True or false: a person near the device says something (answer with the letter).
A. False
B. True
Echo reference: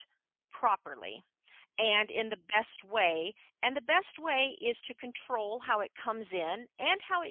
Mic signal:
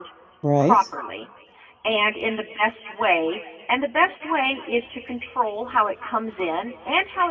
B